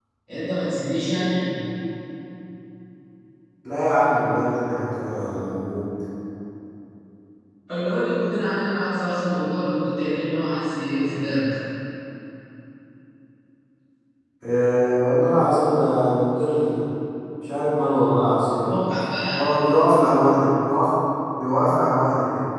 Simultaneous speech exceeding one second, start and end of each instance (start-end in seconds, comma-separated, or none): none